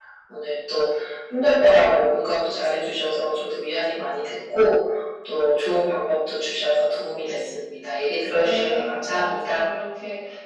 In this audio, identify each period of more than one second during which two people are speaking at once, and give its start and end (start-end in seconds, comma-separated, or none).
8.4-9.6